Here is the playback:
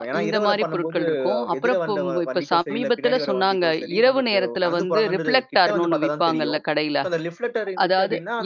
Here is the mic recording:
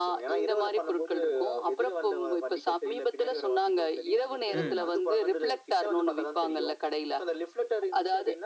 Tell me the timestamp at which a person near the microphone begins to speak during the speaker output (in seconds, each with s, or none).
4.5 s